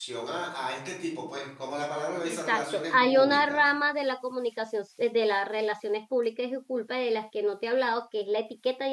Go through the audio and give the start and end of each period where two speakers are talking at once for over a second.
2.2-3.6

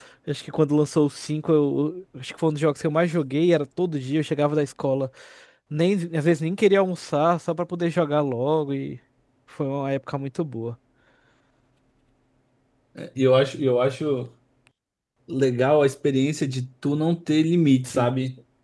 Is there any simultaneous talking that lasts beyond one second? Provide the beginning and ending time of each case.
none

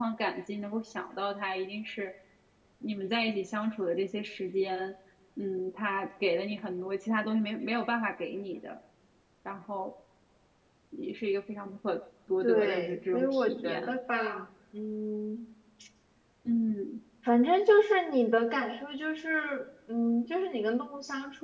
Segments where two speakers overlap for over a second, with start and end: 12.4-14.0

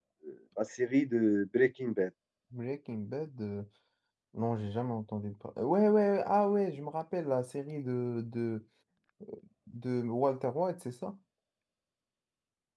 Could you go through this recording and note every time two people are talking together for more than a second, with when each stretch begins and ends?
none

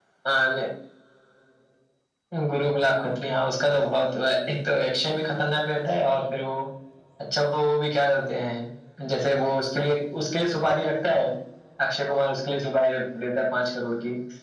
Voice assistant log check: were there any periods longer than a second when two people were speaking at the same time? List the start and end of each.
none

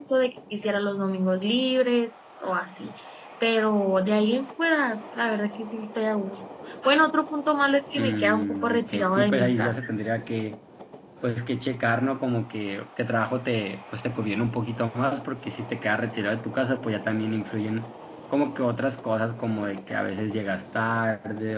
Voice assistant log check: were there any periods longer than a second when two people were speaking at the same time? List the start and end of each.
8.0-9.7

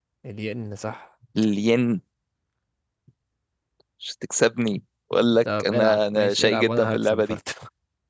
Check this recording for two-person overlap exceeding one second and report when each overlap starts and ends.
5.6-7.4

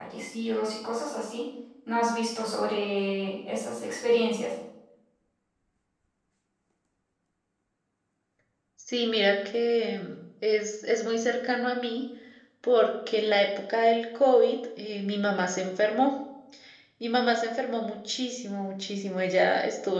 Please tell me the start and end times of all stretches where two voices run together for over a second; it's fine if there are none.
none

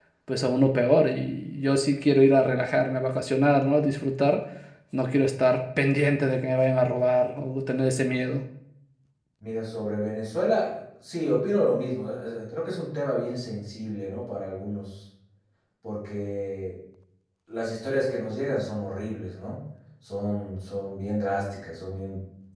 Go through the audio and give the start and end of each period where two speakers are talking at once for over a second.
none

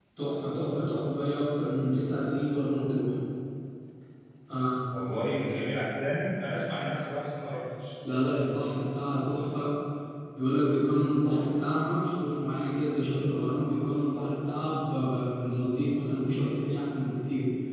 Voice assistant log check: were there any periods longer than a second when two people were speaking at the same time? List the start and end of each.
none

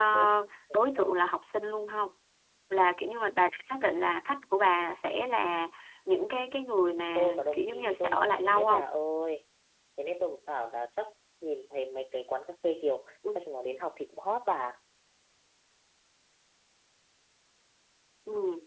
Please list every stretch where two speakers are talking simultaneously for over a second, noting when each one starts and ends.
7.2-8.8

